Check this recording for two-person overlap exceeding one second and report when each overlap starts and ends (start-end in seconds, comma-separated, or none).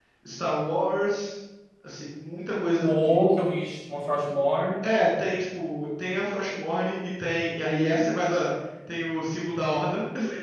none